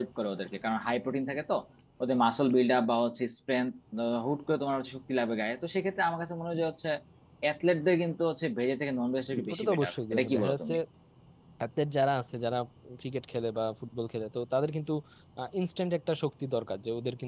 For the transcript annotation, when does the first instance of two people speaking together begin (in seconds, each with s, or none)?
9.5 s